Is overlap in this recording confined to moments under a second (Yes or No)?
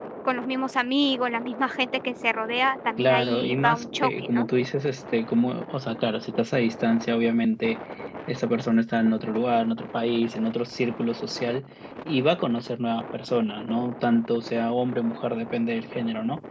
No